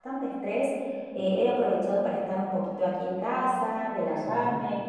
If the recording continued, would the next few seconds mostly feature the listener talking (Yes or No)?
No